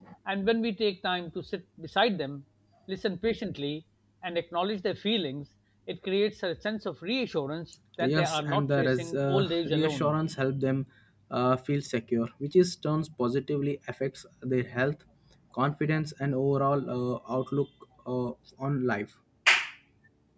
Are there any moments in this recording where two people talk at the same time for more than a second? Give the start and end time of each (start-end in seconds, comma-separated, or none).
8.1-10.2